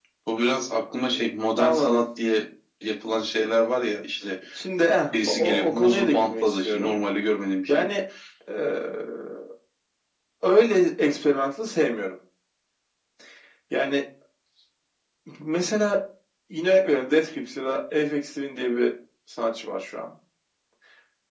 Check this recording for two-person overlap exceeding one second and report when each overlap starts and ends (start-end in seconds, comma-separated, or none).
5.1-7.0